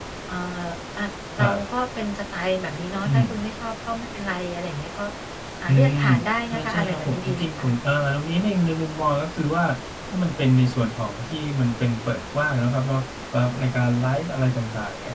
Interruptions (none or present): present